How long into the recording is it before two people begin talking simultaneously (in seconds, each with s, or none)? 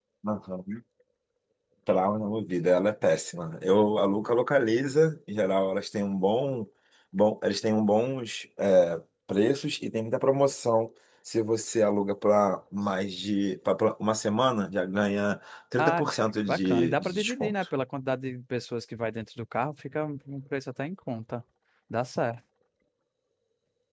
15.8 s